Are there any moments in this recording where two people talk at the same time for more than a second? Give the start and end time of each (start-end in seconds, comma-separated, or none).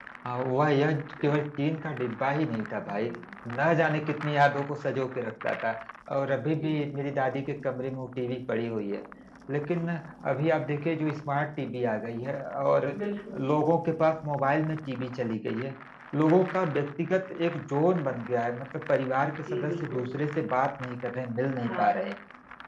none